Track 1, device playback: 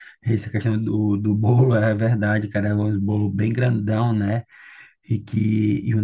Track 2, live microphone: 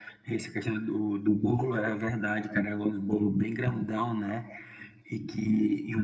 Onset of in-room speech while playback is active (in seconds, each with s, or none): none